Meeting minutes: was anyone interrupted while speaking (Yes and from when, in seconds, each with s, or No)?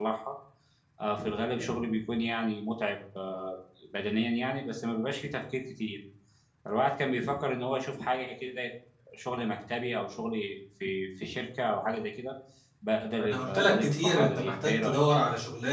Yes, from 13.2 s